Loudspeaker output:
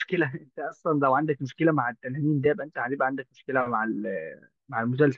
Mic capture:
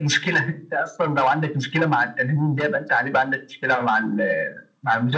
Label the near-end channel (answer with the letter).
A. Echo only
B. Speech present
A